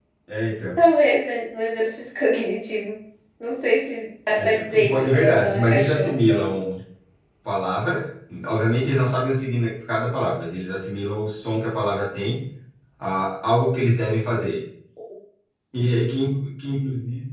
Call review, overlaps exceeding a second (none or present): present